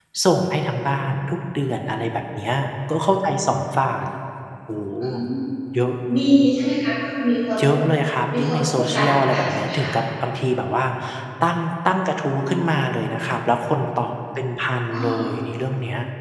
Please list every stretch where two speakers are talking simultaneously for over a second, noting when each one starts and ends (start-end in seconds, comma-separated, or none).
8.4-9.9